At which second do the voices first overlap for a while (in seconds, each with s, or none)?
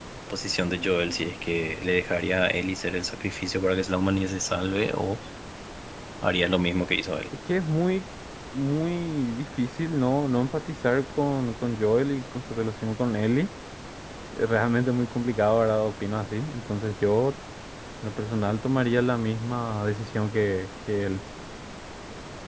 none